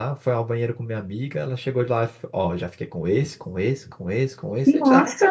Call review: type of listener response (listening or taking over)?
listening